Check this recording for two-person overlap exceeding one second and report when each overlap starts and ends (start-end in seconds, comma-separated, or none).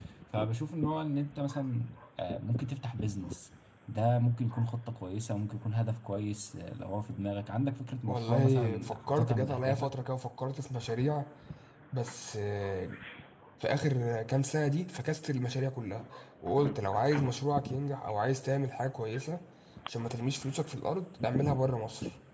8.1-9.9